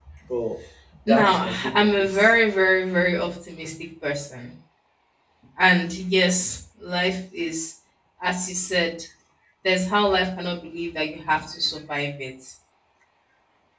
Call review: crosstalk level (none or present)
present